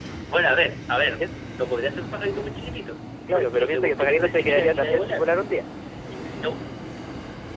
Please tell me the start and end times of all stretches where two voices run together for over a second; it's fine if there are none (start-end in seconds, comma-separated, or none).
3.3-5.2